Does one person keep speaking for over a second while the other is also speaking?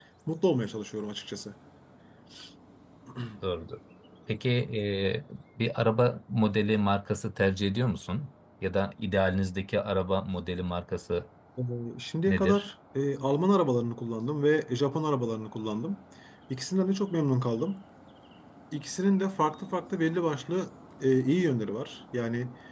No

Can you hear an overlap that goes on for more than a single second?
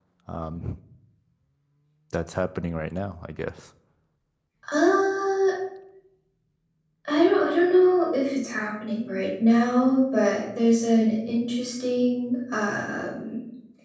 No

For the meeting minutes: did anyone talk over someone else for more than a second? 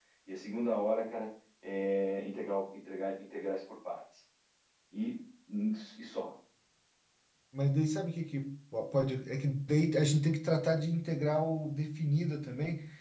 No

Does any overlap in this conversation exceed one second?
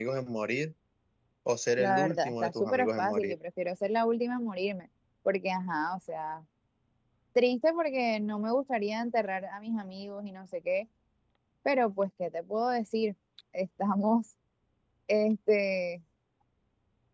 Yes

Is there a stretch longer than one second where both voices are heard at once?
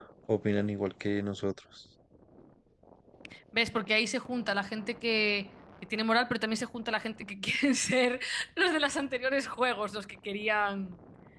No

